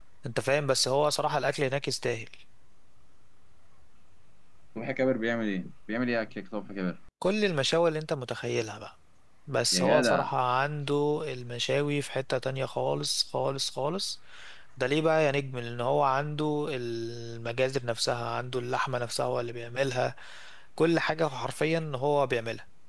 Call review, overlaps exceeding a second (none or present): none